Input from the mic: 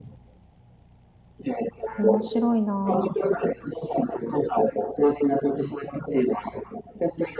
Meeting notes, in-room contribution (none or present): present